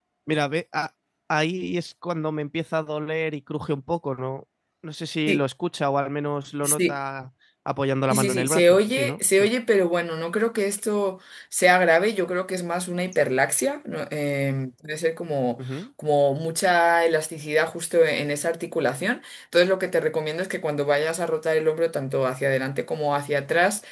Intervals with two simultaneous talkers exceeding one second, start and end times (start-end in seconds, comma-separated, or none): 8.1-9.5